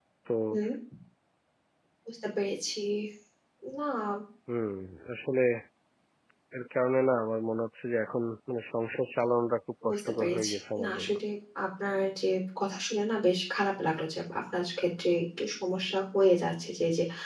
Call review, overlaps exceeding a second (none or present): present